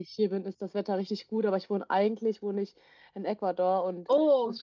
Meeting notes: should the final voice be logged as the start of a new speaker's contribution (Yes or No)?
No